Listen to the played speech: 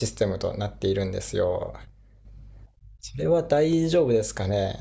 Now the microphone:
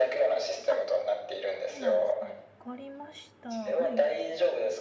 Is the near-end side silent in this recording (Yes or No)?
No